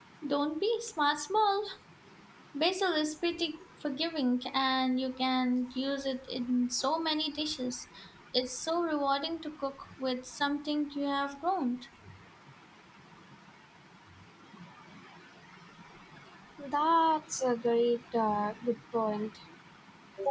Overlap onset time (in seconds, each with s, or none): none